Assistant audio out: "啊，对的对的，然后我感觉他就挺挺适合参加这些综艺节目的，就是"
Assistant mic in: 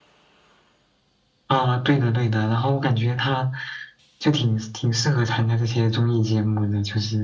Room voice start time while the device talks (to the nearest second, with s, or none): none